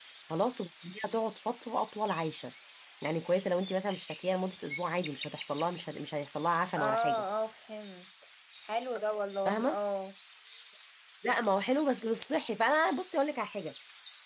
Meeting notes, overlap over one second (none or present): none